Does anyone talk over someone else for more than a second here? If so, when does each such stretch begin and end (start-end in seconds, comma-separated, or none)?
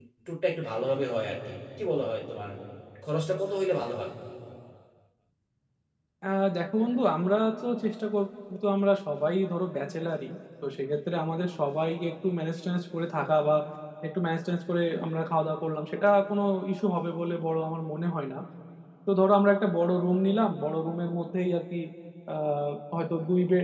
none